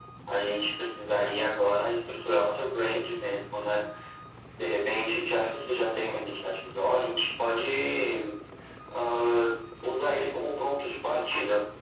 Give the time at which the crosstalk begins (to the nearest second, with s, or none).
none